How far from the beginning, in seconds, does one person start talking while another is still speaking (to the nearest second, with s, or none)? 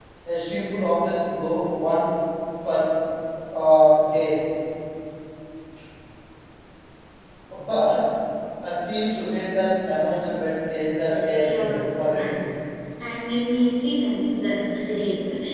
11 s